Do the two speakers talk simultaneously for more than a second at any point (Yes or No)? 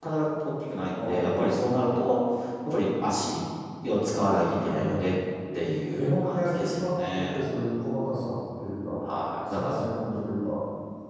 Yes